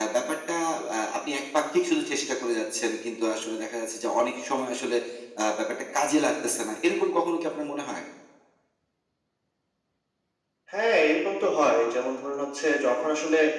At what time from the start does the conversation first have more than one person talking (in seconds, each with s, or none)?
none